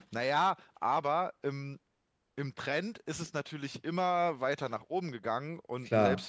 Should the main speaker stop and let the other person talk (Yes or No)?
No